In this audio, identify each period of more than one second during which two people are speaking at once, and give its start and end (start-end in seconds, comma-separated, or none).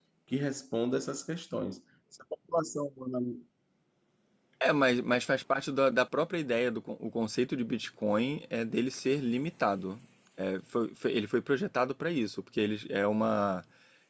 none